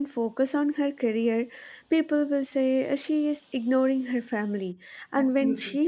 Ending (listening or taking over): listening